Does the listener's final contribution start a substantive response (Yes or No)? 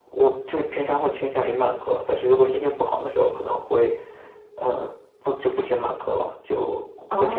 Yes